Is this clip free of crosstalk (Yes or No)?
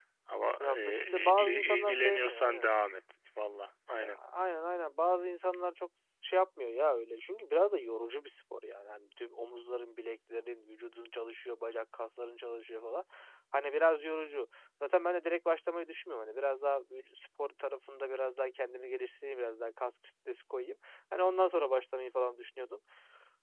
No